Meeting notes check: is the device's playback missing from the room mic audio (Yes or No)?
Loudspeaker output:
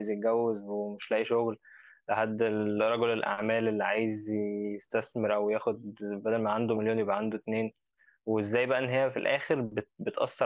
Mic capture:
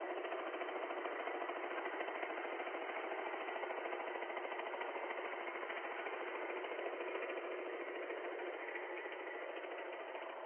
Yes